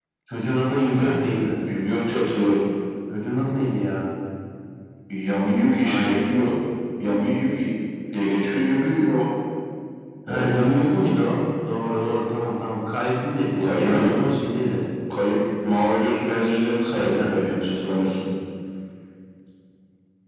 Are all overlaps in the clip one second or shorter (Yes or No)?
Yes